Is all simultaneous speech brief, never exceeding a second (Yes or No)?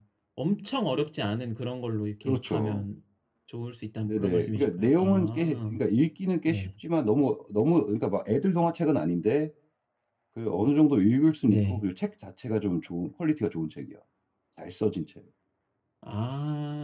No